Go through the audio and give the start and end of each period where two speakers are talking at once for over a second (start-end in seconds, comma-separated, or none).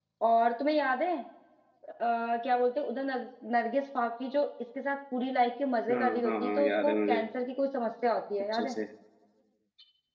5.9-7.2